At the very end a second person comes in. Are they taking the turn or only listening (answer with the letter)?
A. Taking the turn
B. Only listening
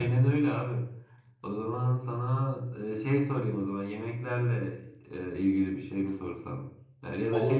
B